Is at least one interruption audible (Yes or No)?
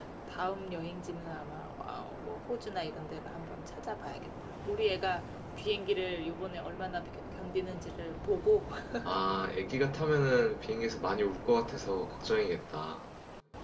No